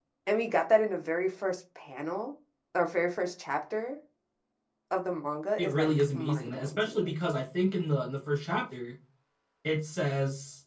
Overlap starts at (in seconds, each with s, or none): 5.6 s